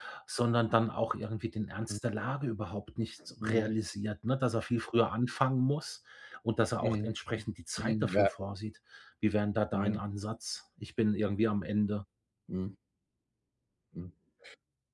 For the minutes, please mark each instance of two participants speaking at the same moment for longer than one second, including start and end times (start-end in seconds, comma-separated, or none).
none